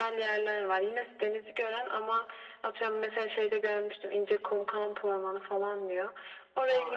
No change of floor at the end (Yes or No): Yes